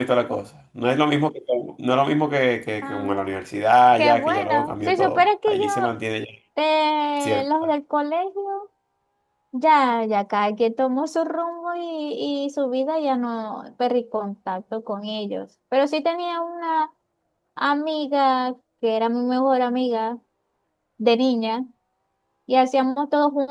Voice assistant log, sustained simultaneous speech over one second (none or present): present